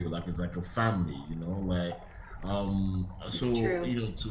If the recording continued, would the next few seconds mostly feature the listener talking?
No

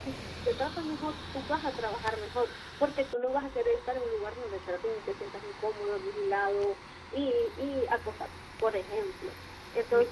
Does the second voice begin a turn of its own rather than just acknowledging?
No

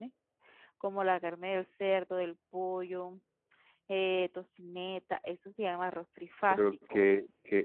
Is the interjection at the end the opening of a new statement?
Yes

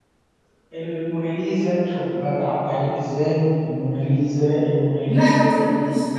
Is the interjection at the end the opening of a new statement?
Yes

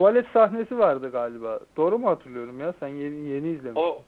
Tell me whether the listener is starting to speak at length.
Yes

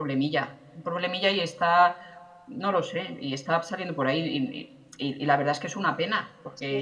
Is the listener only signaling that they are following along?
Yes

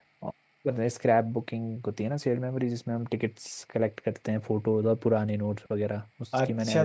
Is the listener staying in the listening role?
No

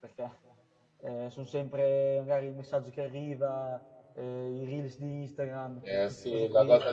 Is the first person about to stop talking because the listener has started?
Yes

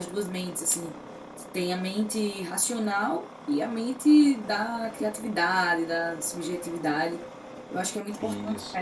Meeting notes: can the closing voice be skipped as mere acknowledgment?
Yes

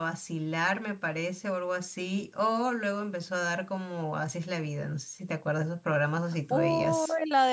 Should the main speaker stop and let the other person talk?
Yes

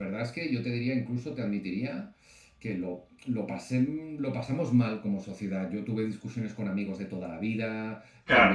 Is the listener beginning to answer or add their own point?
No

